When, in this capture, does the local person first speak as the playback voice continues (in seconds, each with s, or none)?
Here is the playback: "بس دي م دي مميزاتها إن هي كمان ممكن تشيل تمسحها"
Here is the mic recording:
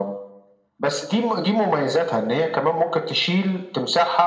none